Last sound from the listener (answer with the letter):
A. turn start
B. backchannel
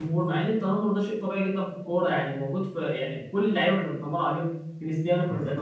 B